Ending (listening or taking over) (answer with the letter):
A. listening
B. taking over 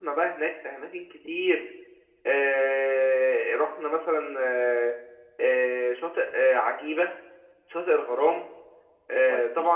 A